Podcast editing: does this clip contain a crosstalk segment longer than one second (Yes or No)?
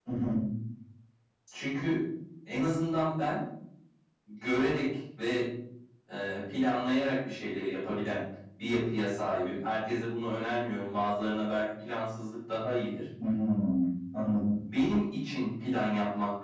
No